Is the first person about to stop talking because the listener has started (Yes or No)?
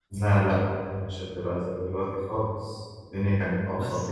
Yes